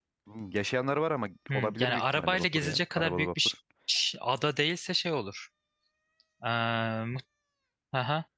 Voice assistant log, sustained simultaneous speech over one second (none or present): present